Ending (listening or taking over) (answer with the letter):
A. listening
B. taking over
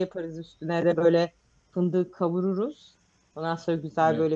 A